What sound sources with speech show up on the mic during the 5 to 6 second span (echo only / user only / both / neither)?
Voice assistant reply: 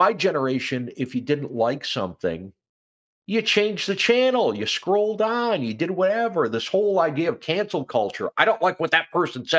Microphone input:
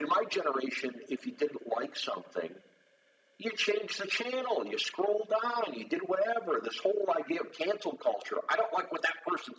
echo only